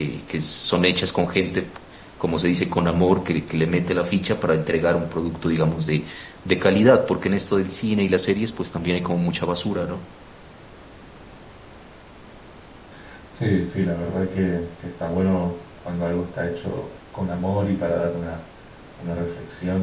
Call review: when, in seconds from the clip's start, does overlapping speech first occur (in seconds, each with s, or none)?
none